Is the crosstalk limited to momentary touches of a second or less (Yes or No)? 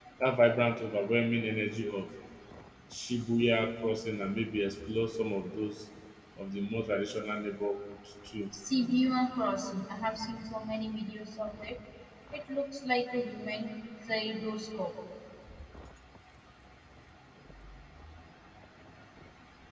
Yes